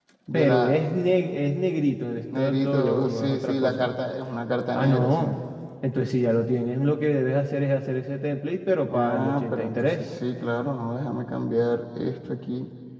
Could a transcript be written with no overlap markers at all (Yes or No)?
No